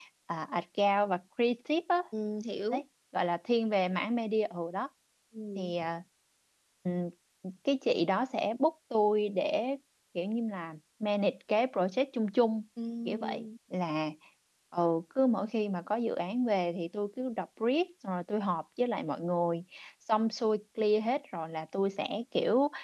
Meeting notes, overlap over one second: none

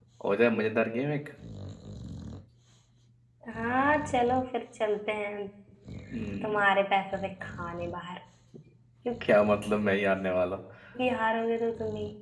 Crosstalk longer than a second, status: none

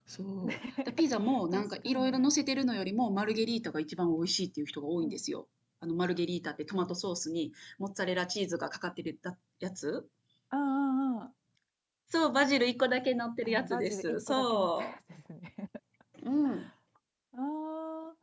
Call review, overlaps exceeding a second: present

